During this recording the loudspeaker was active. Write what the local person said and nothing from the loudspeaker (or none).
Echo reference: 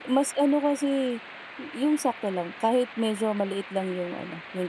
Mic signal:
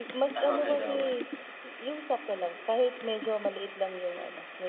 Tama-tama.